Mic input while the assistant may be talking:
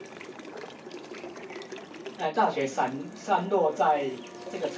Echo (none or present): none